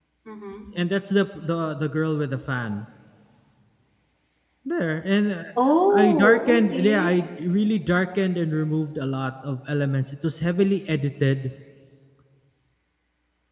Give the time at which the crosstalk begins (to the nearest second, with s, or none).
6 s